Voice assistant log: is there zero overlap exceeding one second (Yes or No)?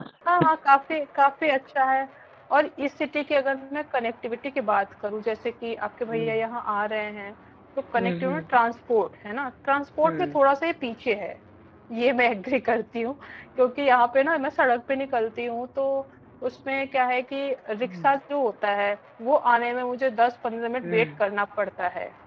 Yes